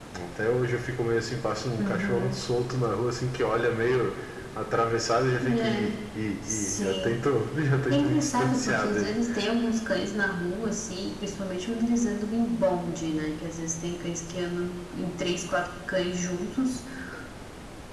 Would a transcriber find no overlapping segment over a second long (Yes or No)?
No